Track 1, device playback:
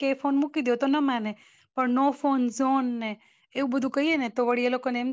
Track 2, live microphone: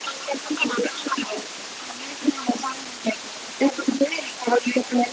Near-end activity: none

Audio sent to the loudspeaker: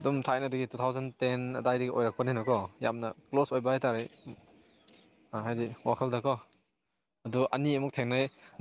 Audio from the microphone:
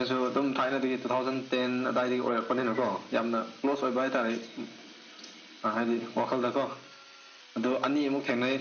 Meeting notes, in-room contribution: none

